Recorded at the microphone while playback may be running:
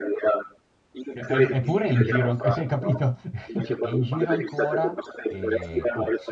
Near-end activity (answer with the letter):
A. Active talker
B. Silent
A